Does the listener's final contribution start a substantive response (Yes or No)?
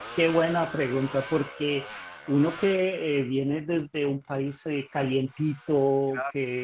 No